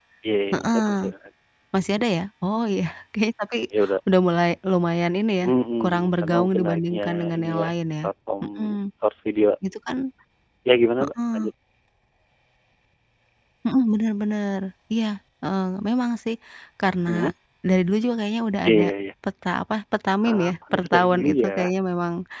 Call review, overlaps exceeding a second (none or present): present